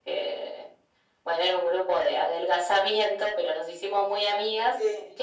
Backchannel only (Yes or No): Yes